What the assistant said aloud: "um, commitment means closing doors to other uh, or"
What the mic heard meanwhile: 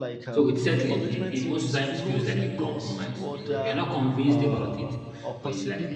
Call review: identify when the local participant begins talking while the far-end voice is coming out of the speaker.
0 s

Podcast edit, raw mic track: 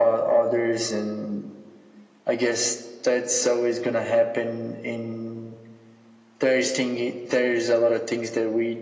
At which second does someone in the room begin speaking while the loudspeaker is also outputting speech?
none

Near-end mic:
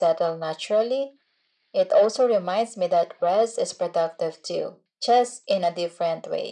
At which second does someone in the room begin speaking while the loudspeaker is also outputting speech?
none

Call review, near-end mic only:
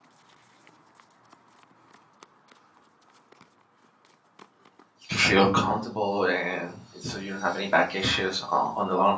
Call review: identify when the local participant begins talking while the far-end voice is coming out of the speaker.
5 s

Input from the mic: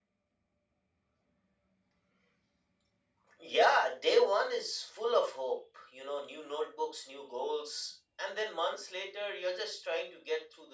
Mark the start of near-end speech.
none

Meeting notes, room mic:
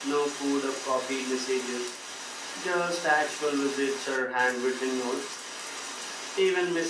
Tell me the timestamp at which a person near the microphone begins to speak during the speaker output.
none

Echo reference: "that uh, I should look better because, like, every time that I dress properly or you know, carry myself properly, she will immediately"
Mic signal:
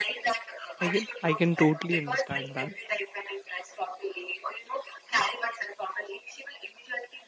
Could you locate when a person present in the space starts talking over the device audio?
1 s

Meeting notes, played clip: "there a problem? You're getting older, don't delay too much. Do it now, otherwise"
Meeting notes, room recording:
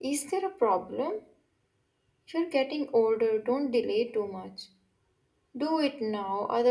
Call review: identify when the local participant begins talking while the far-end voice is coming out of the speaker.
none

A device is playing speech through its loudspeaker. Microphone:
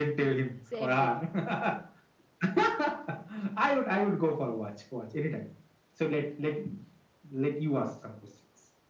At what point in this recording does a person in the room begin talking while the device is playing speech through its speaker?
1 s

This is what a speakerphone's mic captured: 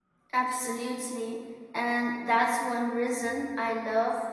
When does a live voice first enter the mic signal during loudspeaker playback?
0 s

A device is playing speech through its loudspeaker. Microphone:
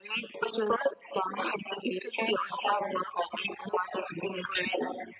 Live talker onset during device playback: none

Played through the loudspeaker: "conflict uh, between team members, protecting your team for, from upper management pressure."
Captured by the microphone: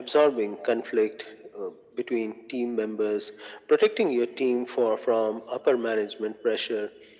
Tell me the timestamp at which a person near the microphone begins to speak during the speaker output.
none

